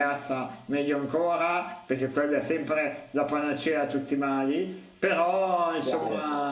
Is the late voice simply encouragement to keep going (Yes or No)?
Yes